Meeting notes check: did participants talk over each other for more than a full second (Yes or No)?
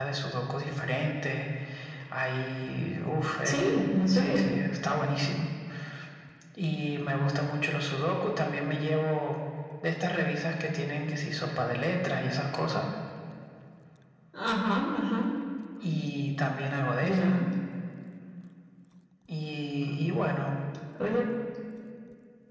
No